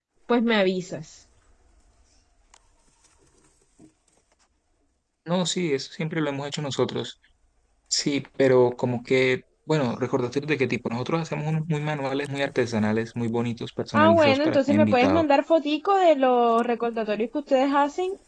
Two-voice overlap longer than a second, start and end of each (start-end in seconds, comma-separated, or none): 13.9-15.2